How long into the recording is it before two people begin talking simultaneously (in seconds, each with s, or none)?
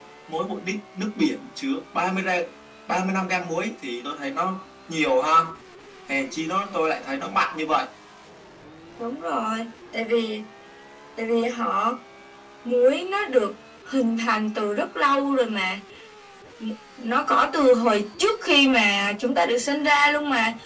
none